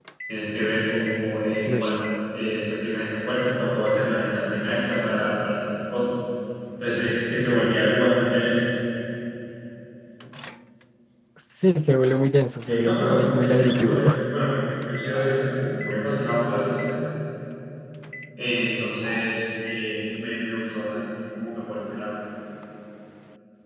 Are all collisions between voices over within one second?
No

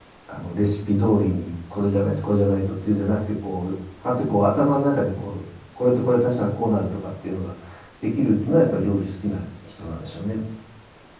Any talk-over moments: No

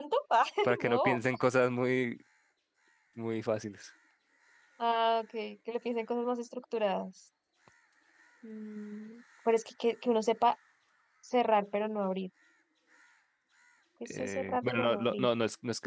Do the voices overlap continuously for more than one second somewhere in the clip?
Yes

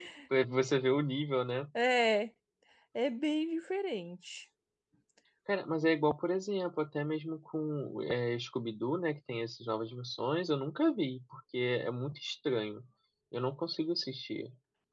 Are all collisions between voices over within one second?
Yes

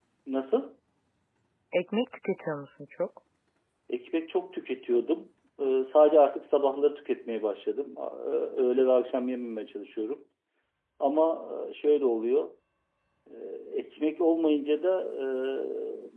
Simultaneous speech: No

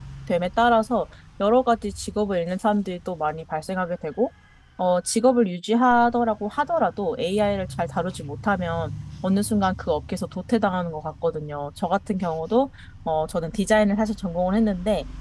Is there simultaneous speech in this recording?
No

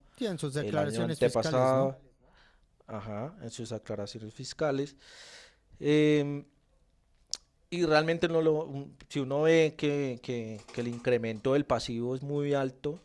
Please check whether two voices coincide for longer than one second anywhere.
Yes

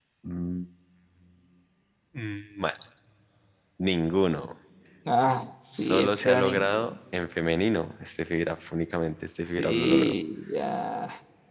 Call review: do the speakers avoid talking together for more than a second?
No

